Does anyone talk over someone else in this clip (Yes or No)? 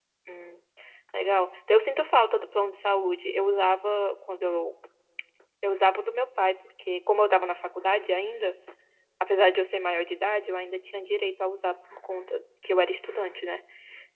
No